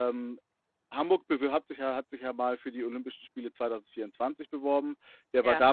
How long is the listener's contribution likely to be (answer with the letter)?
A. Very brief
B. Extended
A